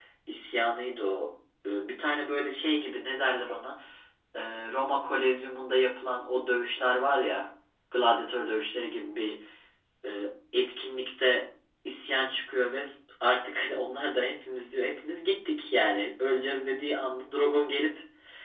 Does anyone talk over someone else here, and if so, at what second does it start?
none

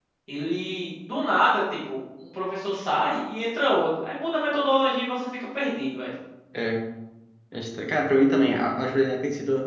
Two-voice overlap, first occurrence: none

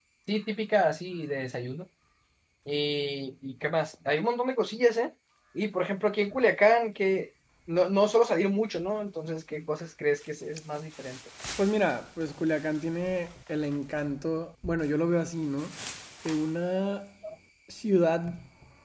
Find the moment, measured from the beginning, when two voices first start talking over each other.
none

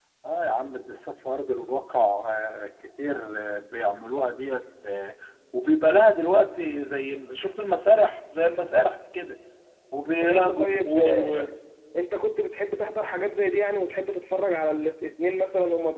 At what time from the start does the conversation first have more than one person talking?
10.2 s

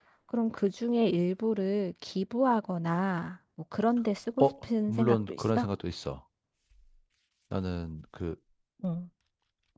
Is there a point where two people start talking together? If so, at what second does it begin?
4.4 s

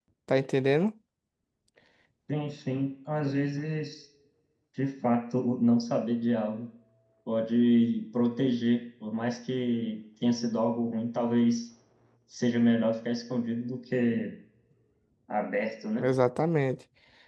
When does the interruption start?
none

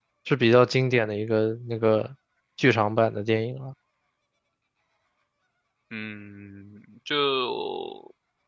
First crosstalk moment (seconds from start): none

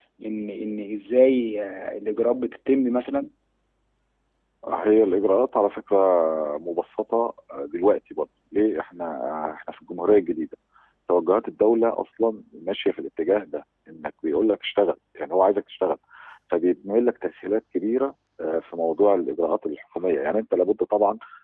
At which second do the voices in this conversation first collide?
none

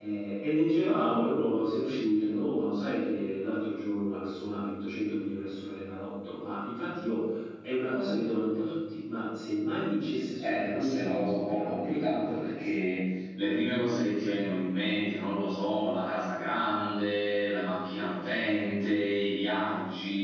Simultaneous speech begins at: 10.4 s

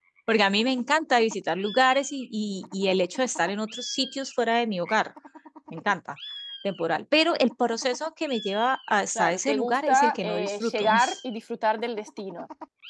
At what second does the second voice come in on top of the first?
9.2 s

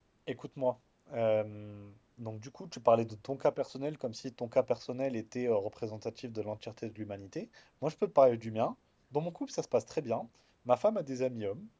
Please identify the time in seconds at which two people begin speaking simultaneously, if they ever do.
none

